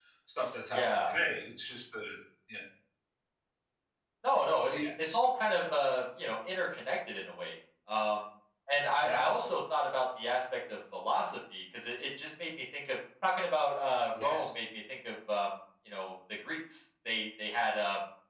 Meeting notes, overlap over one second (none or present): none